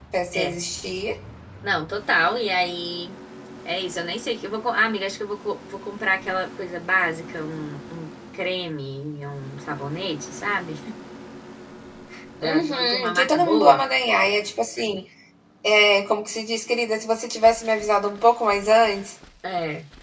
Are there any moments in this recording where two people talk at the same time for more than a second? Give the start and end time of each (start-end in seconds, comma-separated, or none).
12.4-13.8